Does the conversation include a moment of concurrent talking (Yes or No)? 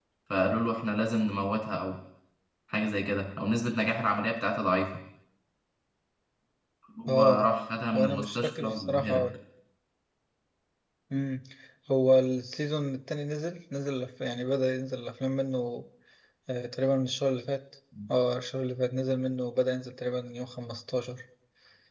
Yes